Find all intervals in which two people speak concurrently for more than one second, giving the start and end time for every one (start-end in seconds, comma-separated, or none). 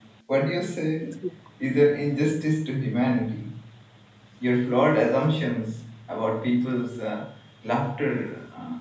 none